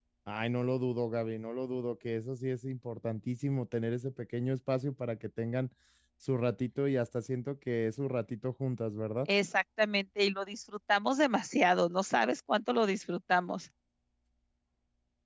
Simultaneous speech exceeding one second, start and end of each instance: none

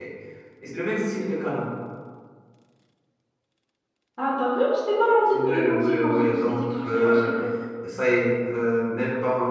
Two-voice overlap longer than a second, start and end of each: 5.3-7.3

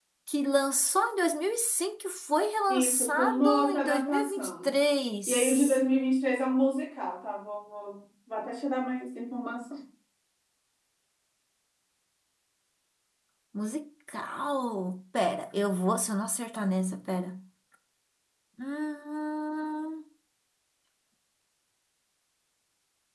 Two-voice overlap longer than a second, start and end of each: 2.7-4.8

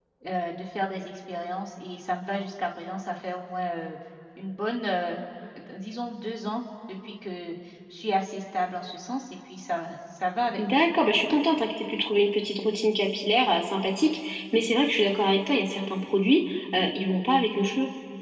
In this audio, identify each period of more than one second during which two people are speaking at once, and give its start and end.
none

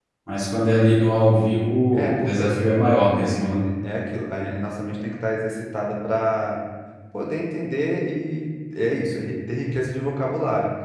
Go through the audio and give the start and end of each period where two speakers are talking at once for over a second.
1.9-3.6

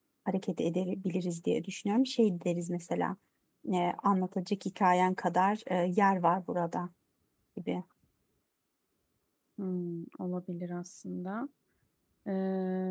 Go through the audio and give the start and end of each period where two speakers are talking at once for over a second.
none

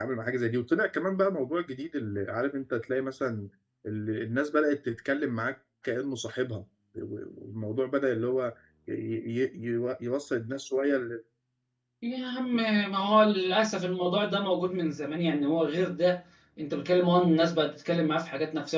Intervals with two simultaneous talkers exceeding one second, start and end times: none

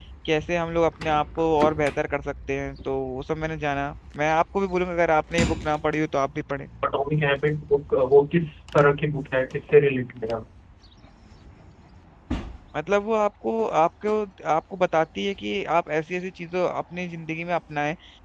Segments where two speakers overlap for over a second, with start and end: none

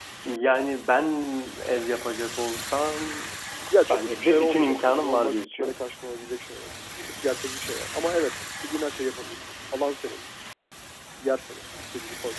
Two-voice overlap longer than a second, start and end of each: 3.9-5.7

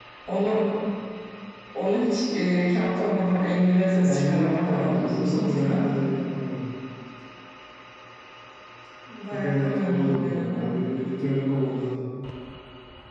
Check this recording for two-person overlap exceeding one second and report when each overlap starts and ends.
4.0-5.8, 9.3-10.6

